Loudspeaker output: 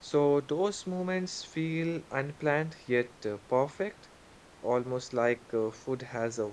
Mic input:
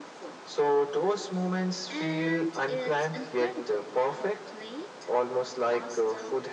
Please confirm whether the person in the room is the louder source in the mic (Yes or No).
No